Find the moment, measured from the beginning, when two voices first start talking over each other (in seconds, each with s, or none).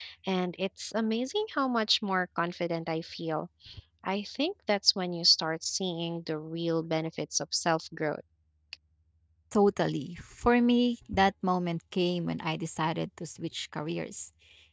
none